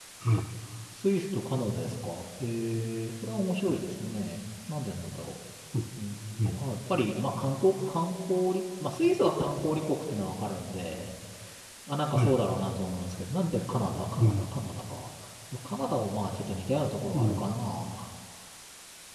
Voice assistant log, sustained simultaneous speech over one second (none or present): none